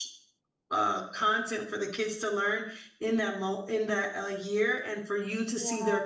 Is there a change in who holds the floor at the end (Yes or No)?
No